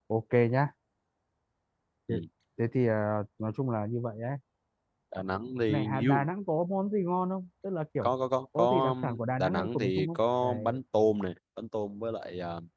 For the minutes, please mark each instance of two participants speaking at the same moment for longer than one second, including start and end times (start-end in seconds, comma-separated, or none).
8.6-10.8